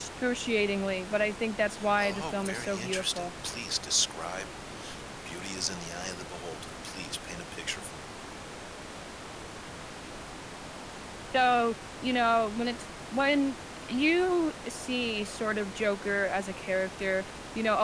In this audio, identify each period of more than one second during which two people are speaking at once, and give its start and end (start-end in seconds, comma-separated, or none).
2.0-3.3